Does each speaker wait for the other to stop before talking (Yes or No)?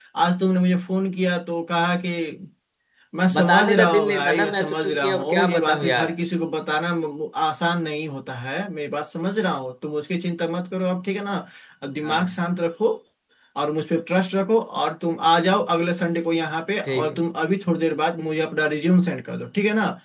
No